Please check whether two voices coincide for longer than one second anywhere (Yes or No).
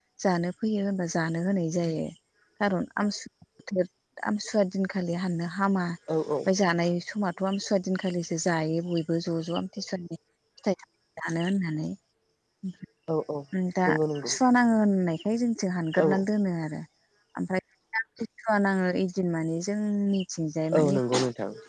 No